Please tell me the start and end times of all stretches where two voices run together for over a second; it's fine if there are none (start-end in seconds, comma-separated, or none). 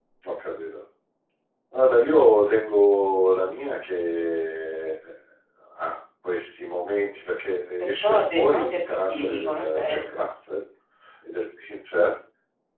8.0-10.0